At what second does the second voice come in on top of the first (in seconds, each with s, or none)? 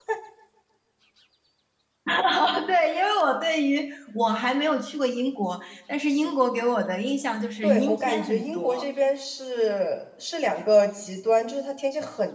7.6 s